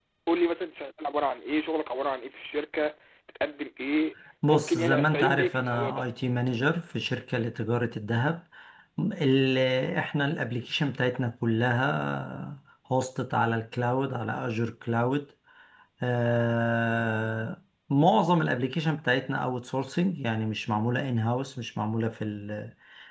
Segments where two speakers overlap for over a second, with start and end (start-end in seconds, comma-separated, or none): 4.5-6.0